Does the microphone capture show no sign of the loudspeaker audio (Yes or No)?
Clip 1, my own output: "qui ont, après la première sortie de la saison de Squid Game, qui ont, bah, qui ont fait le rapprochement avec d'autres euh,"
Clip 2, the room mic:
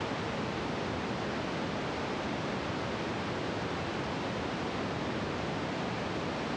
Yes